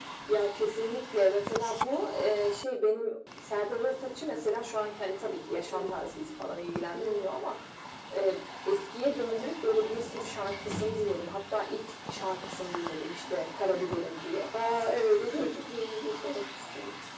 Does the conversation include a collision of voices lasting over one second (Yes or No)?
No